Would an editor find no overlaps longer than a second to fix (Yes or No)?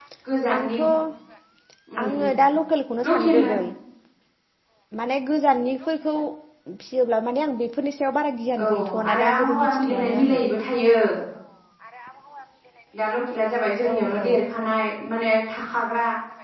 No